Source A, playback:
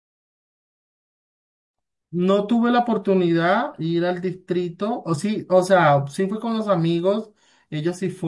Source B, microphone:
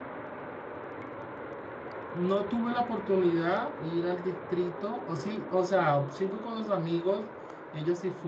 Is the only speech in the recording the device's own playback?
Yes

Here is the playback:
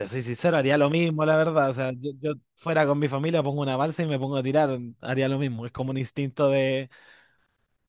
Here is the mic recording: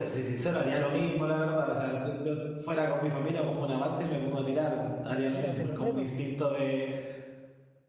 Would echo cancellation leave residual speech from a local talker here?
Yes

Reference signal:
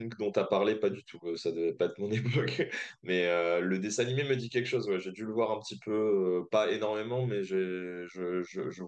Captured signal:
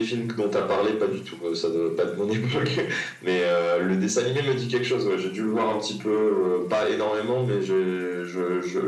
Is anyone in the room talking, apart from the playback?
No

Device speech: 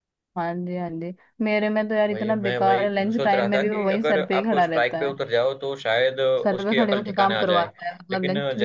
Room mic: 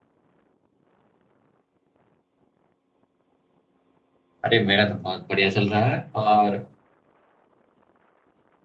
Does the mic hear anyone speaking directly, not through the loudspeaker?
Yes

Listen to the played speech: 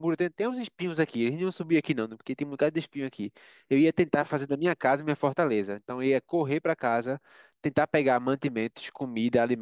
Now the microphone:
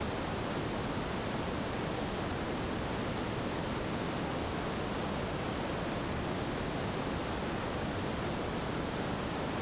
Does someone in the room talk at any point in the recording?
No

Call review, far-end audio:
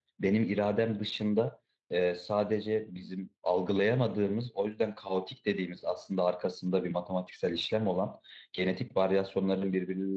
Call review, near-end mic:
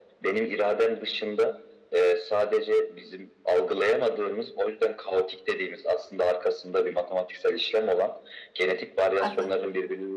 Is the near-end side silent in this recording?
No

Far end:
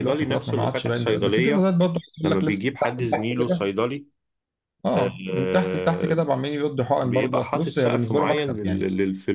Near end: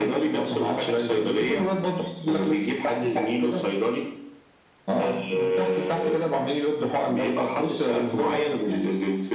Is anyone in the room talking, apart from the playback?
No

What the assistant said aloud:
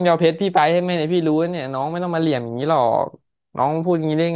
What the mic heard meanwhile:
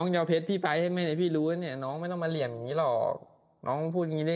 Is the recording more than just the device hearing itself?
No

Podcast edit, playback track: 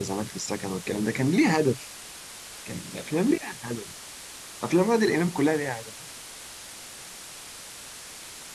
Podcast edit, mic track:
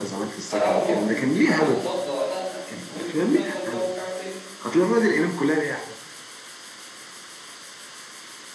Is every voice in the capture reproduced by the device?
No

